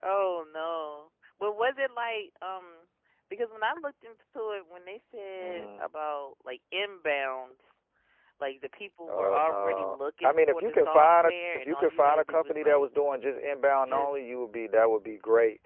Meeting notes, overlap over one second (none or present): present